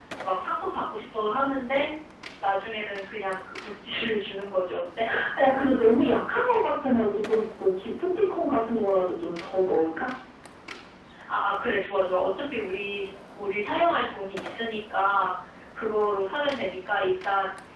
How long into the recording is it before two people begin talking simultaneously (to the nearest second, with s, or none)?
none